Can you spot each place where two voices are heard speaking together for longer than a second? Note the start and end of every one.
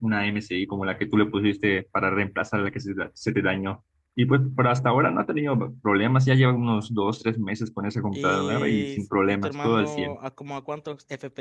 8.1-10.2

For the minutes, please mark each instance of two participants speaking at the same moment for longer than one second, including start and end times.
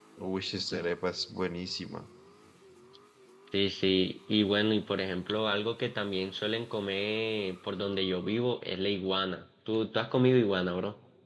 none

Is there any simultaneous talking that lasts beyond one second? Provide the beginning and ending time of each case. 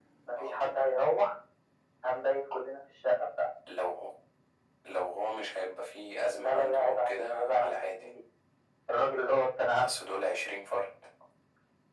6.3-8.0

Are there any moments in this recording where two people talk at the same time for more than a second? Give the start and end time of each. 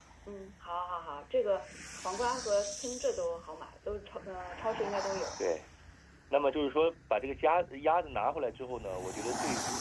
none

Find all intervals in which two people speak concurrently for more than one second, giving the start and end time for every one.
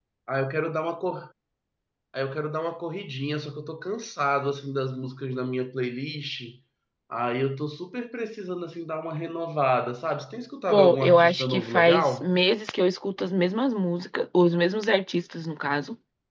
10.7-12.3

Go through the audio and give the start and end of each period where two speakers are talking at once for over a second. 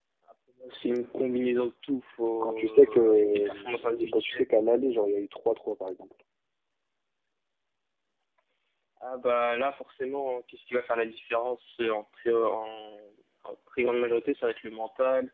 2.4-4.5

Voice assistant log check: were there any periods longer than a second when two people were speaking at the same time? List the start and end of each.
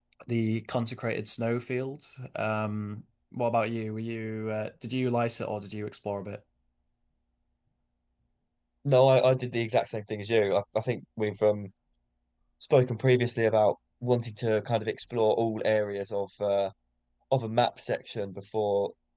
none

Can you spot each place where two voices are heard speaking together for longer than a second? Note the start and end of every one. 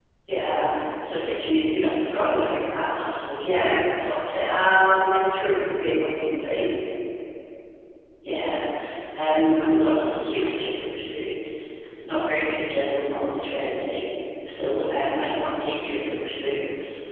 none

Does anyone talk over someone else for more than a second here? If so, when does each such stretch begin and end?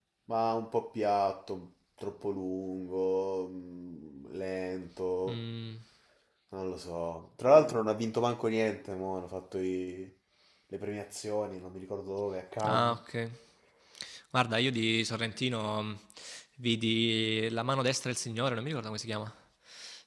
none

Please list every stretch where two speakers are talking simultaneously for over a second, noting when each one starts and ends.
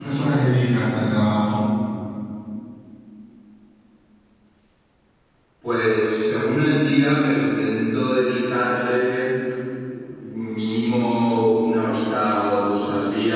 none

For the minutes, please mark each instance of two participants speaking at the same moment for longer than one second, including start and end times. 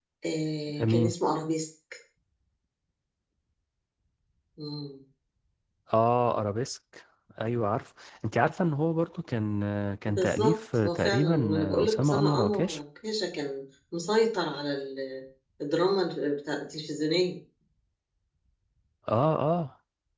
10.1-12.8

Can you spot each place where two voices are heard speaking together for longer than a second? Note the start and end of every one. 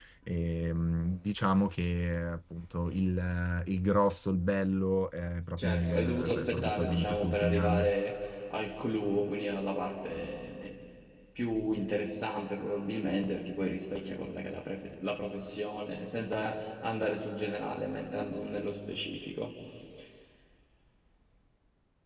5.6-7.9

